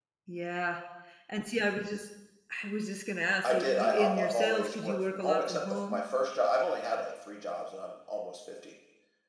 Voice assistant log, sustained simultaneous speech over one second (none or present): present